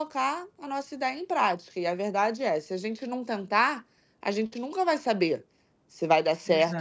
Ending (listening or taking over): listening